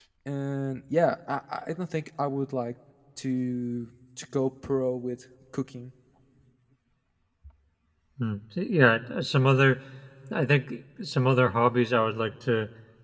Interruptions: none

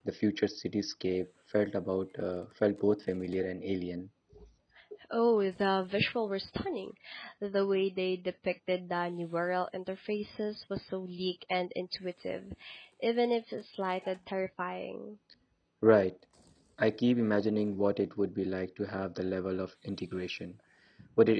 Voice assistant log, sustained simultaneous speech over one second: none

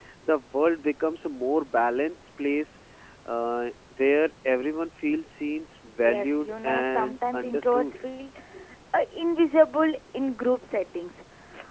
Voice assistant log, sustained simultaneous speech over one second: present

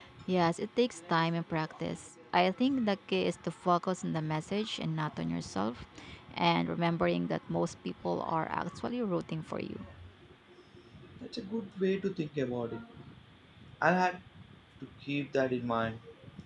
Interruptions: none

